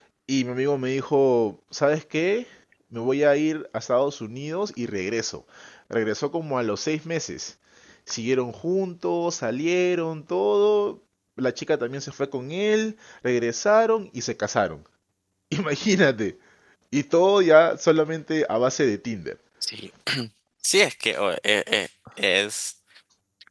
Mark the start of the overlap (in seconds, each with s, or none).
none